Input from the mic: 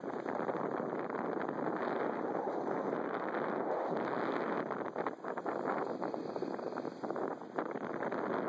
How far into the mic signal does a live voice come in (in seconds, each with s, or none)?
none